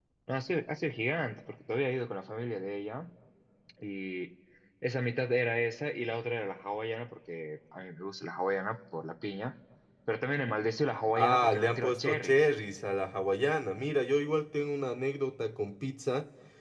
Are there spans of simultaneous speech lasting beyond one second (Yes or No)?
Yes